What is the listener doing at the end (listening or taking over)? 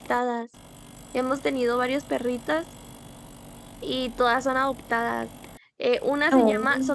listening